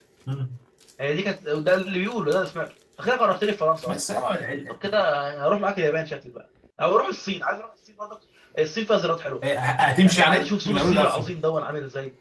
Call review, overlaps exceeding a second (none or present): present